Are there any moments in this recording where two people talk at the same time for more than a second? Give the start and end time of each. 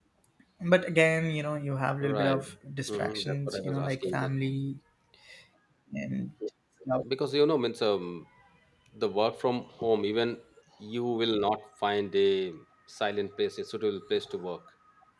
2.9-4.3

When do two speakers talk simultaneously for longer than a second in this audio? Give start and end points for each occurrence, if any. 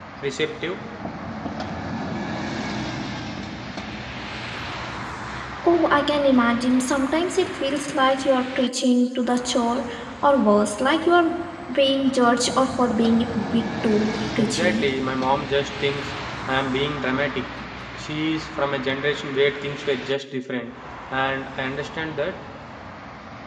none

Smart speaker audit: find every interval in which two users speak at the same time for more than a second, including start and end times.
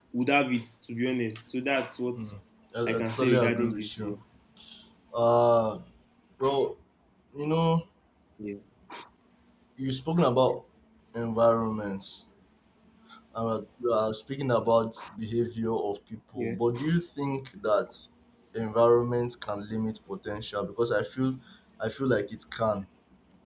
2.9-4.2

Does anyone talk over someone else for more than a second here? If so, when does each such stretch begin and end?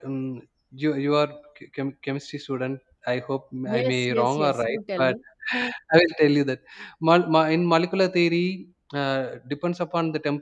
3.7-5.2

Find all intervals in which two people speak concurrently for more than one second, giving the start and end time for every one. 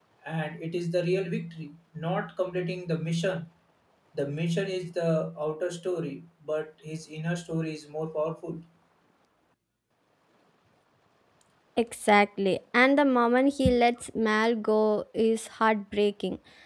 none

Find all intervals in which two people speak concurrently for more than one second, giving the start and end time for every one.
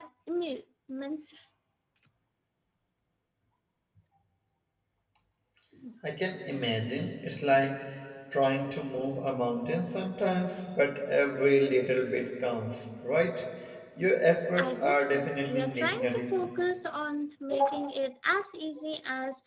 14.6-16.7

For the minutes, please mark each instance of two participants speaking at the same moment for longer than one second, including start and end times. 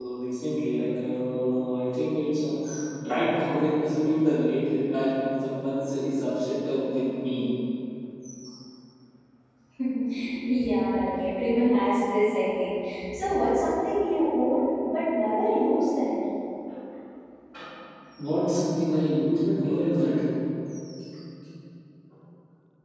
none

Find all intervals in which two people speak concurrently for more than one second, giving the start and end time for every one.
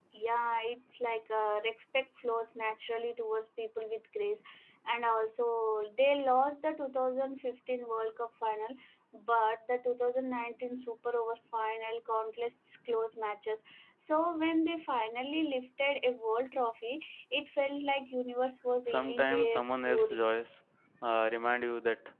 18.8-20.2

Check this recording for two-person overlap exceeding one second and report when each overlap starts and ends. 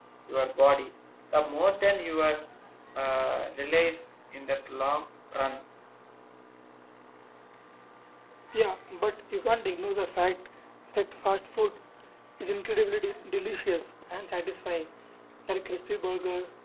none

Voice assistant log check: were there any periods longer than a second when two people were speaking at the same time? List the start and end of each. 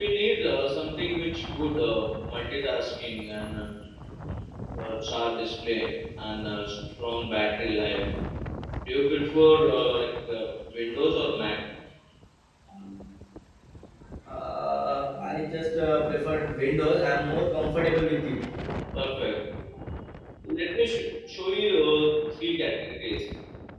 none

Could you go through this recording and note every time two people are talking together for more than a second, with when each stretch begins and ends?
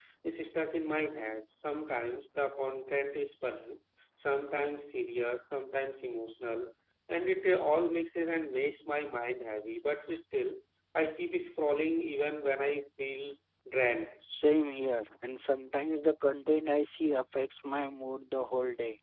none

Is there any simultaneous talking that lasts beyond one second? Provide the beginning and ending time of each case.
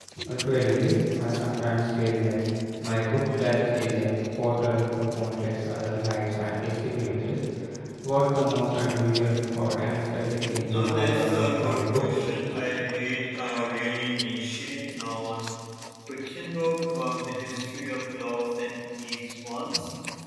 10.5-12.1

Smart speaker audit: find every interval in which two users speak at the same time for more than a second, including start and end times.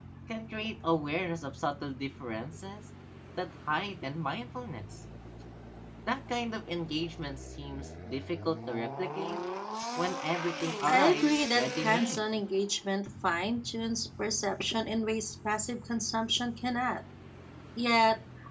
10.9-12.4

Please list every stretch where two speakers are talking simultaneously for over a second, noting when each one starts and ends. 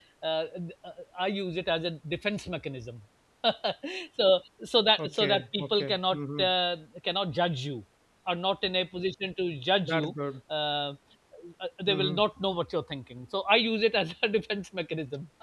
5.0-6.5

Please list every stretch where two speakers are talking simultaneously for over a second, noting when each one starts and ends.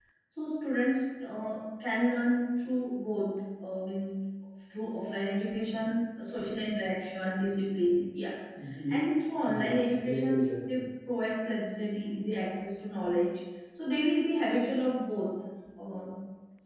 9.4-10.8

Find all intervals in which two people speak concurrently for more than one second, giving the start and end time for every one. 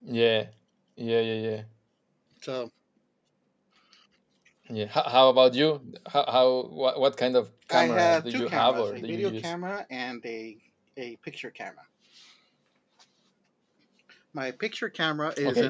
7.7-9.5

